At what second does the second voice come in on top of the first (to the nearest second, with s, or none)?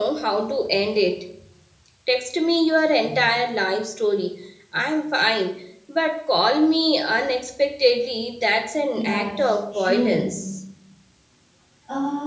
9 s